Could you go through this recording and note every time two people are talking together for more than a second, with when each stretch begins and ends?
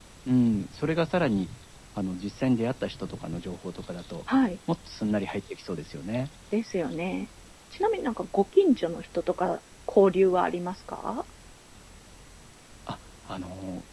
none

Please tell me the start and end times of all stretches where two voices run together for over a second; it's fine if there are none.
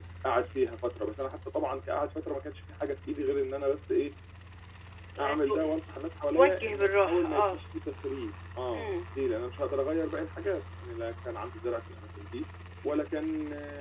6.3-7.6

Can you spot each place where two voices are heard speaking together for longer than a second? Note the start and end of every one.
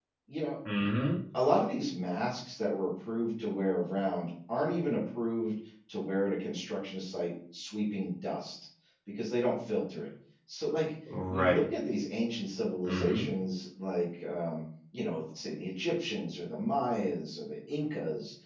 none

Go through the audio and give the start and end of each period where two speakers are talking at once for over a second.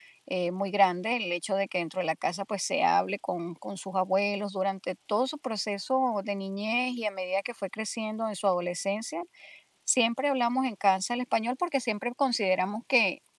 none

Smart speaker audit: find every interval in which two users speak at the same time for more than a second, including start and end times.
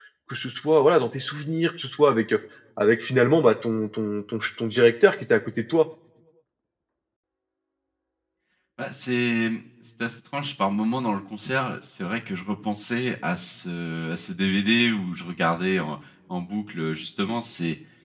none

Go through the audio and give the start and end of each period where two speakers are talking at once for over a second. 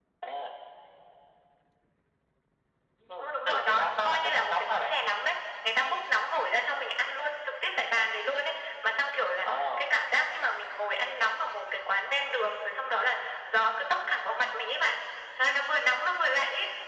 3.2-5.0

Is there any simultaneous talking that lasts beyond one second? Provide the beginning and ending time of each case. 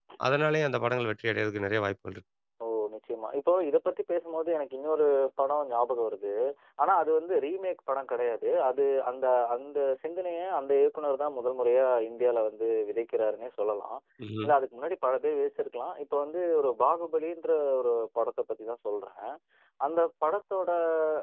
none

